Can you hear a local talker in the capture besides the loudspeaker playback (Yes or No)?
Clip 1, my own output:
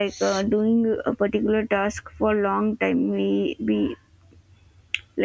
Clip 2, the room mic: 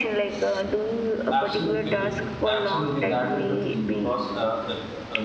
Yes